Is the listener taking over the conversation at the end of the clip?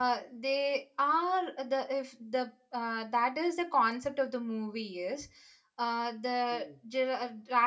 No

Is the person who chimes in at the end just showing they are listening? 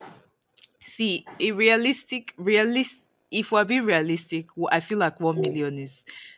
Yes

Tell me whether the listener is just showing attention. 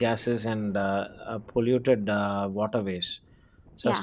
Yes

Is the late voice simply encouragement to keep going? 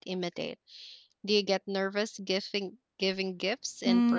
No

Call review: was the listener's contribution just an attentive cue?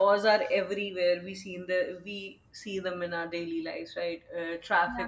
No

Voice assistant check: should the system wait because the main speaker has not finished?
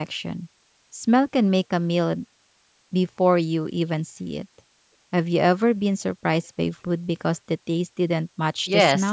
No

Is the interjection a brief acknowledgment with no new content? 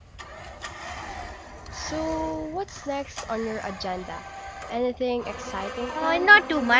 No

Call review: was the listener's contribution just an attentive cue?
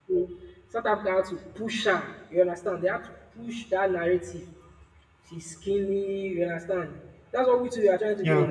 Yes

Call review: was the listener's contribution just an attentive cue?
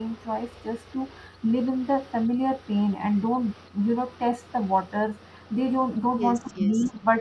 Yes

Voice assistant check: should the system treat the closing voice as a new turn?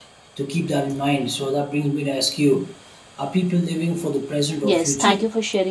Yes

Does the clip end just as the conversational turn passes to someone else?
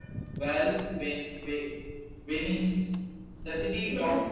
No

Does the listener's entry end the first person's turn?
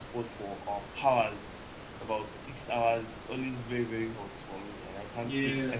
Yes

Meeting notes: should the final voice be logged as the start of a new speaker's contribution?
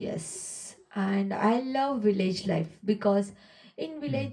No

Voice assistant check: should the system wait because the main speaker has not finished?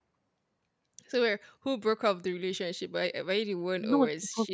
No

